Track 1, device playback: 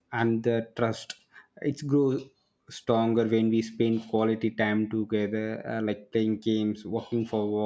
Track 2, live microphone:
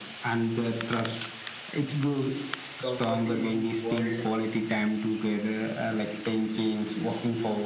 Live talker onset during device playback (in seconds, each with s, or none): 2.8 s